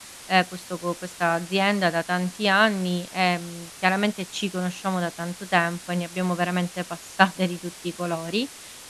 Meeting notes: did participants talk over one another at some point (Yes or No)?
No